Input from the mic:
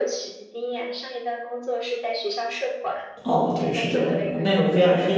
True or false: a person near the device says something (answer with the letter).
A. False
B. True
B